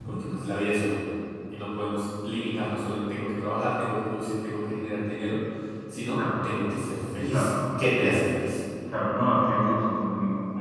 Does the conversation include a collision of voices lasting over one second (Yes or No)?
No